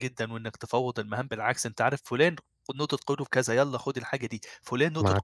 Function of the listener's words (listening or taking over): listening